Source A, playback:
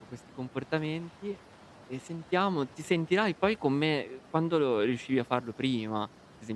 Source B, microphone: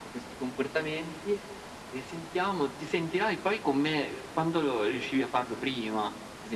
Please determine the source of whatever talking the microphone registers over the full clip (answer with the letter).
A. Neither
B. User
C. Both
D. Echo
D